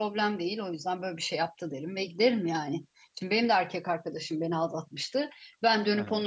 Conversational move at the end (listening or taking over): listening